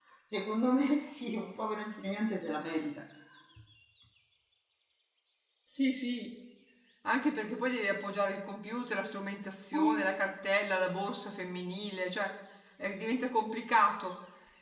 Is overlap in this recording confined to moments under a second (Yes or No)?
Yes